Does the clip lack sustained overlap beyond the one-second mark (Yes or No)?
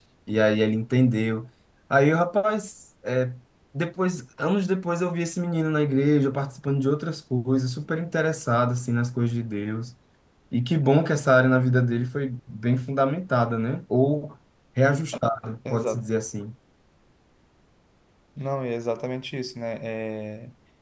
Yes